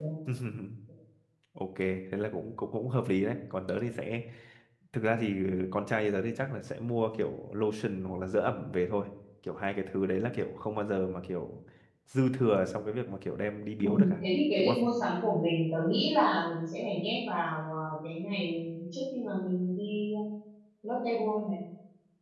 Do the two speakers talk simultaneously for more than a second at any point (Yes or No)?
No